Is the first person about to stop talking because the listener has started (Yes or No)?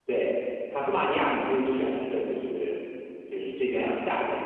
No